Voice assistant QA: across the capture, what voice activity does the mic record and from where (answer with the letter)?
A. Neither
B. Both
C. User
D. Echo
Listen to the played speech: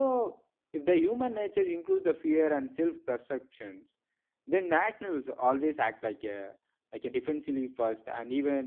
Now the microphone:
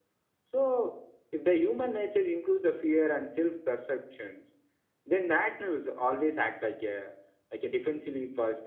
D